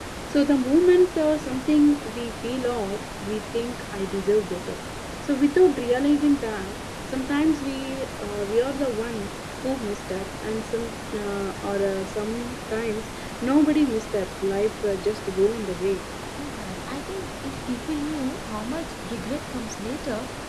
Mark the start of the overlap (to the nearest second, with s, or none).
none